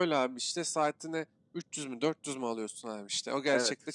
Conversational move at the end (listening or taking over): listening